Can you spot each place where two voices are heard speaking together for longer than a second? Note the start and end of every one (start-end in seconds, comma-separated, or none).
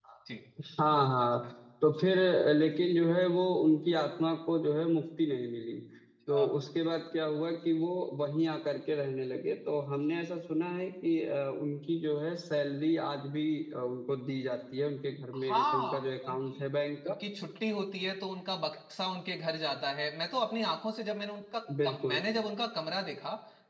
15.3-16.6